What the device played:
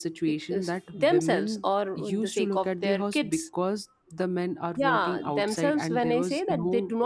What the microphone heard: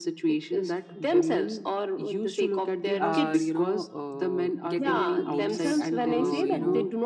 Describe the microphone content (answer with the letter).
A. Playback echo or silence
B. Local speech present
B